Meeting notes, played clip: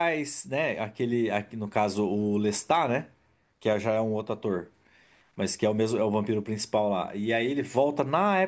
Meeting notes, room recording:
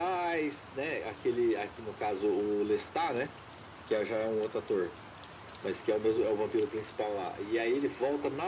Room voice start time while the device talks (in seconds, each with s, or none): none